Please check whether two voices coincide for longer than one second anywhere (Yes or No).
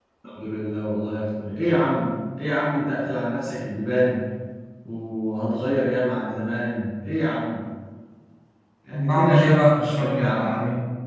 Yes